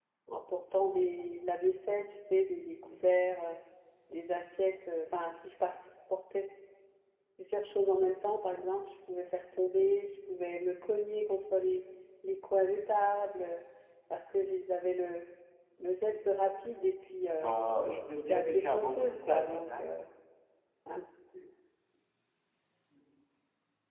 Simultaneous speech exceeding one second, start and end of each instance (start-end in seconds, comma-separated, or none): 18.3-19.9